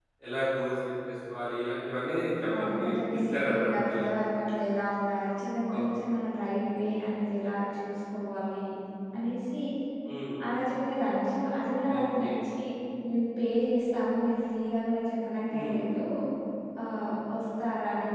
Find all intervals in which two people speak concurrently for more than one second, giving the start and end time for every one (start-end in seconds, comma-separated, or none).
2.6-4.1